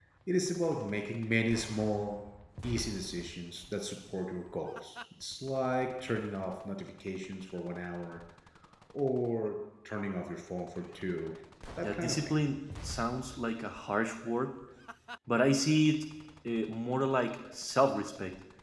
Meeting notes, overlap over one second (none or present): none